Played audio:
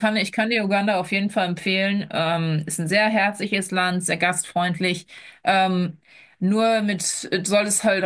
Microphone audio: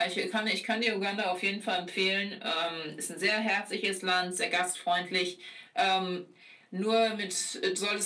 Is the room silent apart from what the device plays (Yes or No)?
Yes